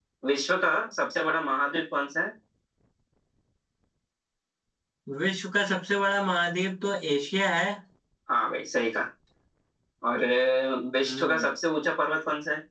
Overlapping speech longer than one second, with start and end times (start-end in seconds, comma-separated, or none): none